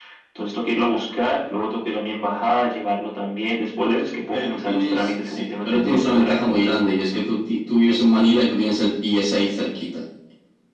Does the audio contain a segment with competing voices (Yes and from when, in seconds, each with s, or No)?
Yes, from 4.3 s